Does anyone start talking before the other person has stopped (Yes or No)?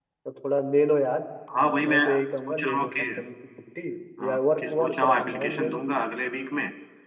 Yes